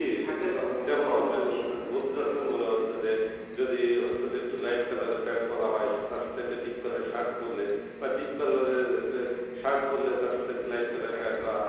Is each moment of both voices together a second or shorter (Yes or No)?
No